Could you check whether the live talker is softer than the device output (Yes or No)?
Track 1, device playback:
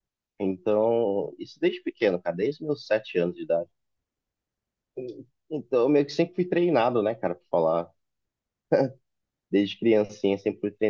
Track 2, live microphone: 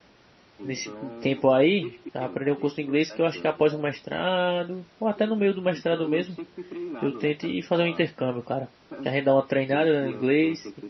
No